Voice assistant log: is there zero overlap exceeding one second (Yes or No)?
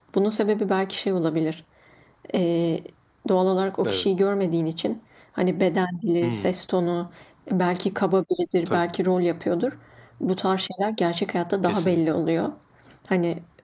Yes